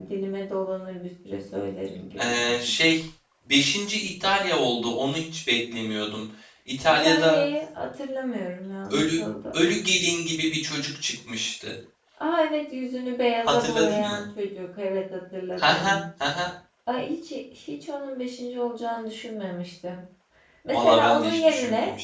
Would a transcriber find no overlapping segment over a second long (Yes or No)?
No